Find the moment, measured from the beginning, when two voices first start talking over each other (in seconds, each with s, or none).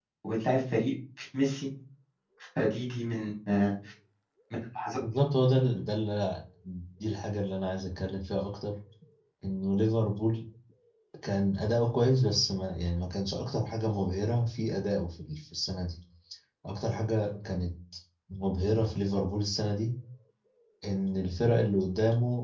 none